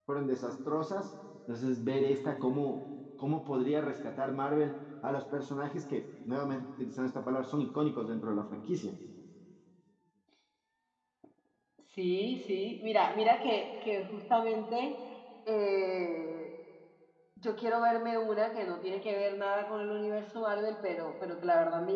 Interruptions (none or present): none